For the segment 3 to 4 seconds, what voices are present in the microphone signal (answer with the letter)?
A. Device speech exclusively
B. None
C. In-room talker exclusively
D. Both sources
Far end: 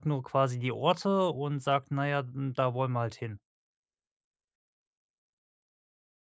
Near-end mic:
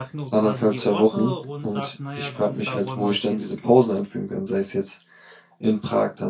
D